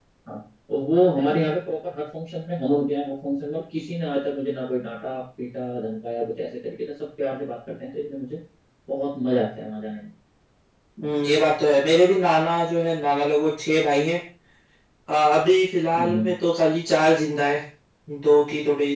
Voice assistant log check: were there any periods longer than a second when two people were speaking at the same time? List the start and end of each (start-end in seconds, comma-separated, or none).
none